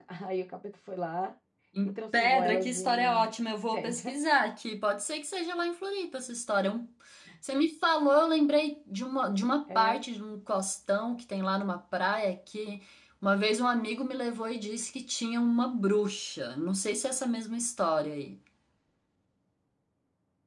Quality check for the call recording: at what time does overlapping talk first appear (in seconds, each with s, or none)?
1.9 s